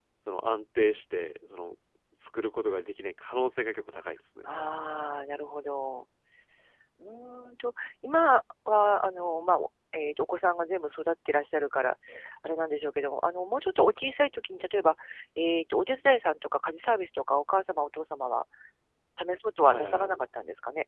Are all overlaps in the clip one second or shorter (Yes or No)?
Yes